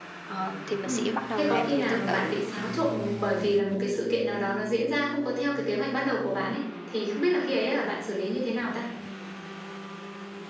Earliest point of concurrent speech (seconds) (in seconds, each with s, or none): 0.8 s